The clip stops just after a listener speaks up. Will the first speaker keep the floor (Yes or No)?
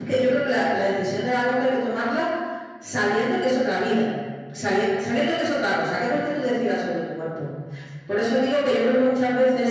Yes